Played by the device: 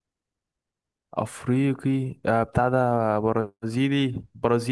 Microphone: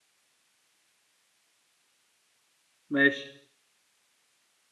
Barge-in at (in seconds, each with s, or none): 2.9 s